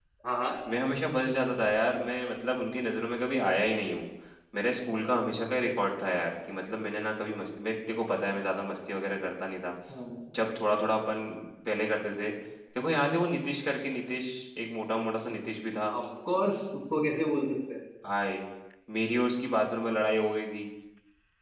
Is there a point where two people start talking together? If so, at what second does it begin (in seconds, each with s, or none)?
none